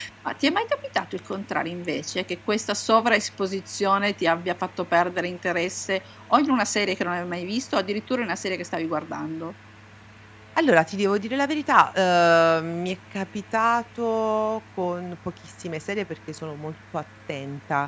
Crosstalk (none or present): none